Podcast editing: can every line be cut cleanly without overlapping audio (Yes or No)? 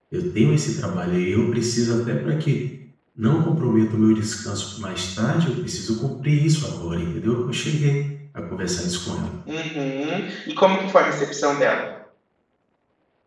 Yes